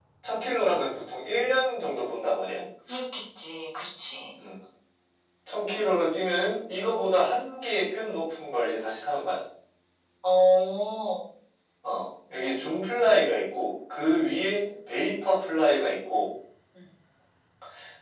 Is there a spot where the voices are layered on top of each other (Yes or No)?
No